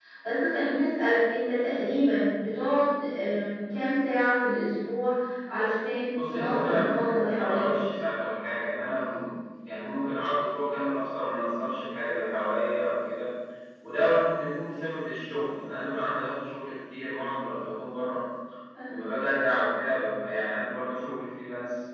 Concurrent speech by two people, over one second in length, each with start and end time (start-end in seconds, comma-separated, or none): 6.3-7.8